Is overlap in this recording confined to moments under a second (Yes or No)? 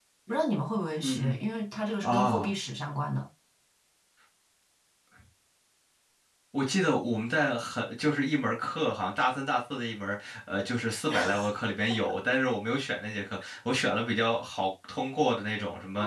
Yes